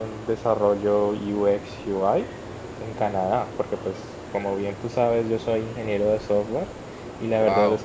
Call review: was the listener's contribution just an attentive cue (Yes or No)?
Yes